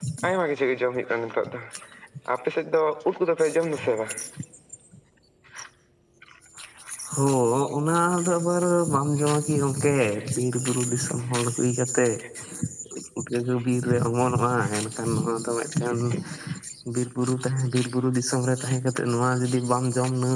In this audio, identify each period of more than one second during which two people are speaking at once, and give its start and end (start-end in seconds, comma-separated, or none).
none